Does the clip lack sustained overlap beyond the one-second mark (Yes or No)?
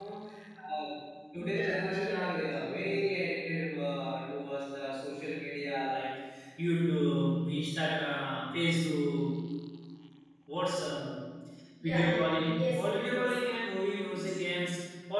No